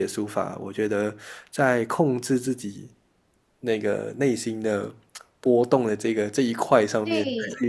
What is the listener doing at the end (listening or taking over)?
taking over